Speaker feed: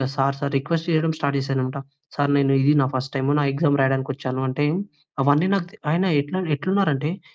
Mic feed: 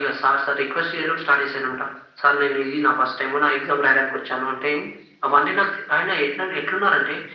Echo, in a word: present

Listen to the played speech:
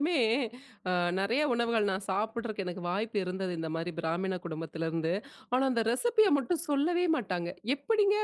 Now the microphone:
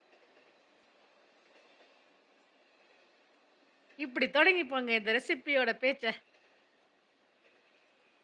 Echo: none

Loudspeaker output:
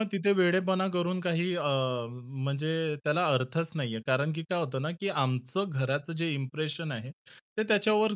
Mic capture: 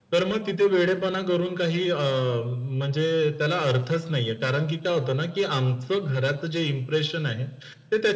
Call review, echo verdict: present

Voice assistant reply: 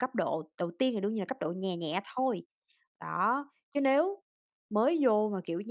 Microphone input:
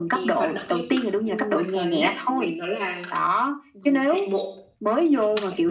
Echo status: present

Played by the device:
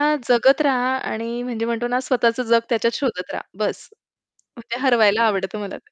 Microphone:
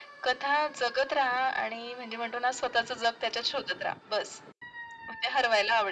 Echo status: present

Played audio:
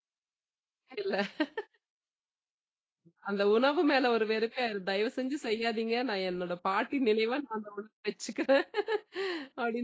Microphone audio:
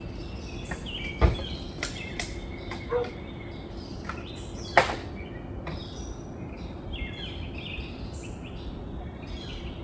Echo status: none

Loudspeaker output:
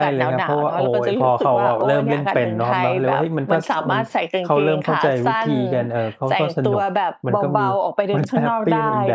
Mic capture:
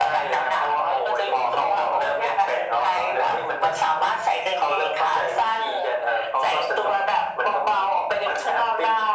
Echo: present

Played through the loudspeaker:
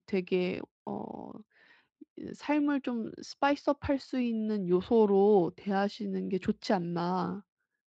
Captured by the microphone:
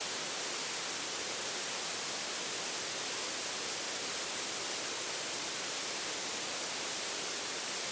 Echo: none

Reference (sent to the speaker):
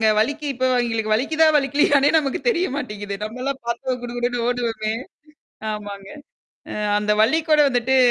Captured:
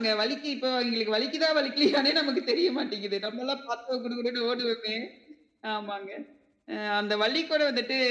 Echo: present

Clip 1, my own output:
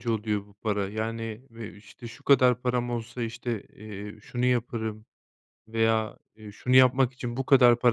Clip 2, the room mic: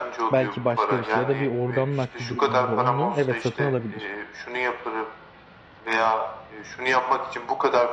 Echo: present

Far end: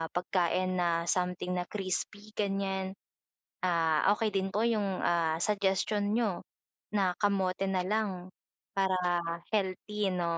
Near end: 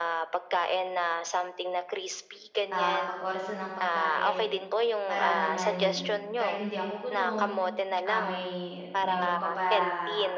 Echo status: present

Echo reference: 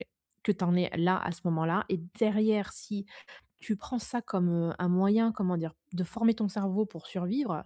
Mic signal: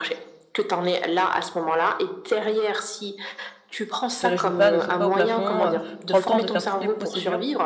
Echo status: present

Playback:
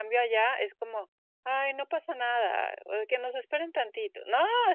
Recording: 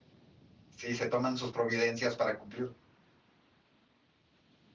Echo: none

